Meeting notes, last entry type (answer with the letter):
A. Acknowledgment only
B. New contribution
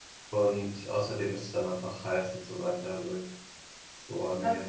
B